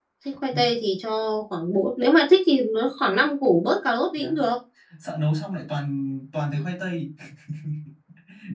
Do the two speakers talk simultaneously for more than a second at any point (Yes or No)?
No